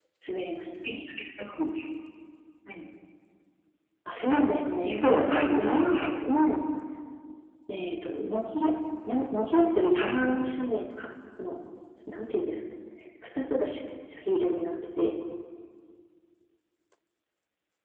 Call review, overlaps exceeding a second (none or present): present